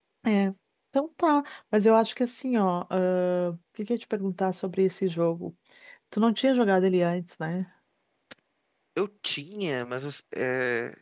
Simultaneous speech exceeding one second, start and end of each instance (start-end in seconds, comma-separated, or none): none